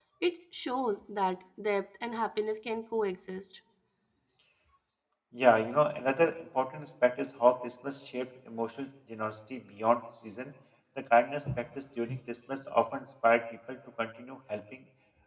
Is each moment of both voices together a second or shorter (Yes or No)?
Yes